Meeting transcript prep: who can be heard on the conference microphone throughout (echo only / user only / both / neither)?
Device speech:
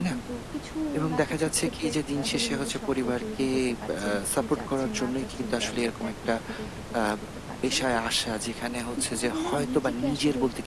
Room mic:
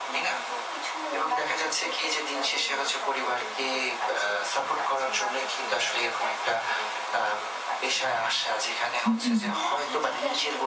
both